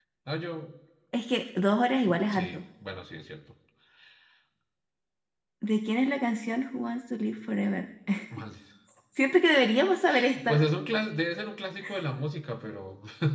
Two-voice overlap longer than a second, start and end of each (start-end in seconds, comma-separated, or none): none